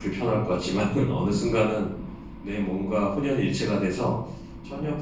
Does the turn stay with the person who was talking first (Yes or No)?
Yes